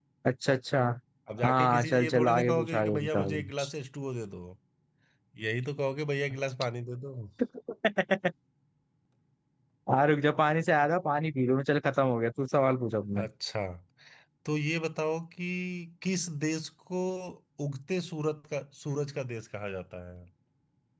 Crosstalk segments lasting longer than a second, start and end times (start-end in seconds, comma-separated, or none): 1.4-3.7